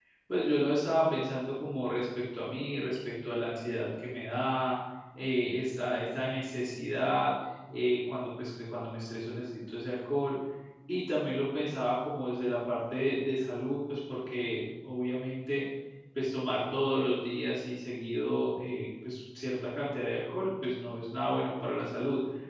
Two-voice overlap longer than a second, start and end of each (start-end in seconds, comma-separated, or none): none